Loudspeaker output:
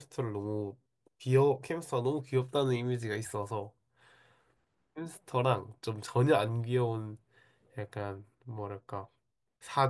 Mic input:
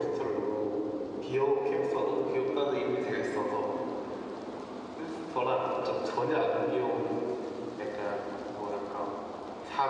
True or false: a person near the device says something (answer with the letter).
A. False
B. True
A